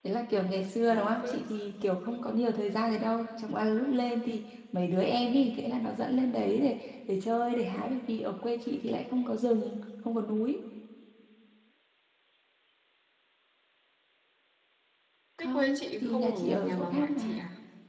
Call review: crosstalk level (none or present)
present